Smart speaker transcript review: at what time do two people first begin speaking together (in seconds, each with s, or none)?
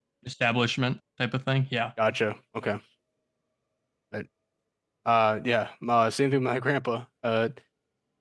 none